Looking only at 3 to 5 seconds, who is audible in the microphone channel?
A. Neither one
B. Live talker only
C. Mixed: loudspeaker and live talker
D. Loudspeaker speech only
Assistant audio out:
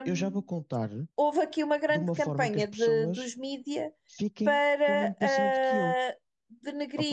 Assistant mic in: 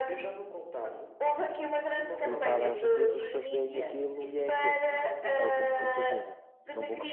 C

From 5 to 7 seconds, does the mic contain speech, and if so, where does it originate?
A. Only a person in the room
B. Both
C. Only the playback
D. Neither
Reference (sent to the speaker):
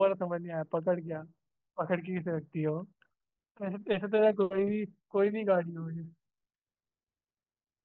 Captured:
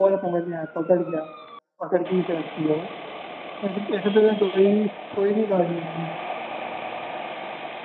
C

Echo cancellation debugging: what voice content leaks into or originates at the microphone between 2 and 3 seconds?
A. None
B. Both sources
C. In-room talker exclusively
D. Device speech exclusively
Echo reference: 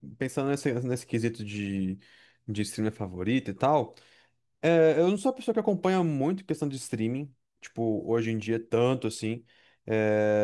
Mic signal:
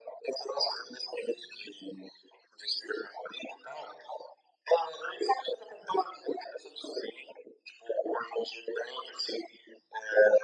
D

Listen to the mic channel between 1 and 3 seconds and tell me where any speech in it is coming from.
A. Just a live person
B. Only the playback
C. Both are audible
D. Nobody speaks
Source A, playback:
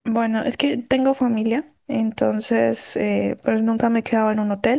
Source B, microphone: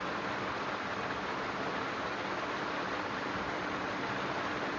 D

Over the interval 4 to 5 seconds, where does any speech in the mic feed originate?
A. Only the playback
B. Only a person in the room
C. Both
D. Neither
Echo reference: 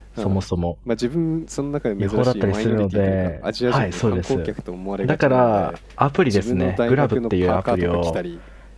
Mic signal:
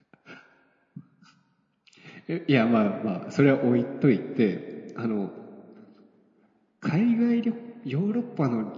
B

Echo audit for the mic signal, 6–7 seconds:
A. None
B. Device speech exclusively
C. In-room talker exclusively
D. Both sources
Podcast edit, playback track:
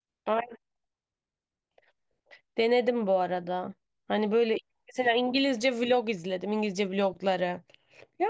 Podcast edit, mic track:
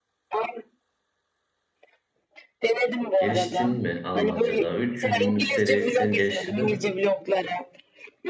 D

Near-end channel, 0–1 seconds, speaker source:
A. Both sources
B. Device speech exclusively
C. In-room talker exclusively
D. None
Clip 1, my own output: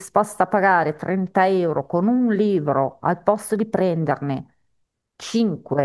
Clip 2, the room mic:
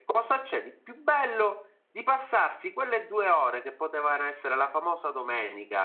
C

